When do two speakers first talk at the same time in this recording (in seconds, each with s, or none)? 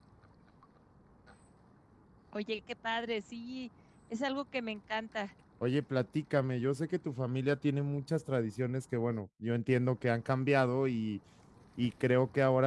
none